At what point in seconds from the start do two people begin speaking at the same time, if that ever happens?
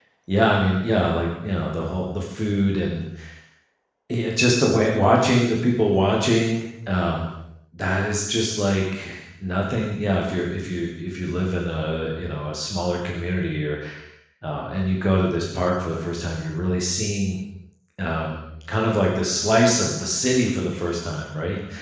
none

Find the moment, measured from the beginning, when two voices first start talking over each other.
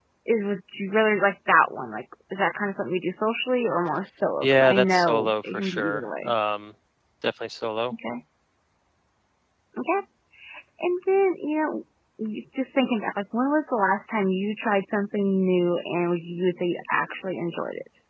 4.4 s

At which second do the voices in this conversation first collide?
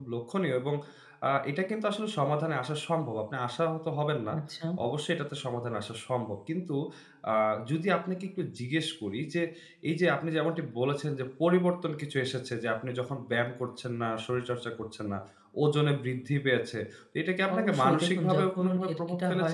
17.5 s

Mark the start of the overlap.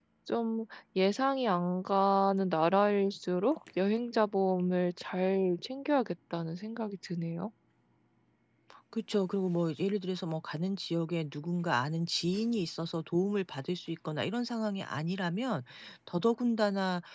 none

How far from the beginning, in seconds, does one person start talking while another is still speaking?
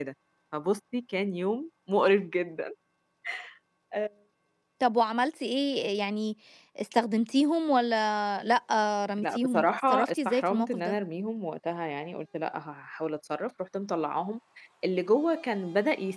9.2 s

